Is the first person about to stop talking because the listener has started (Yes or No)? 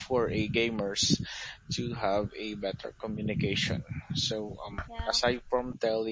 No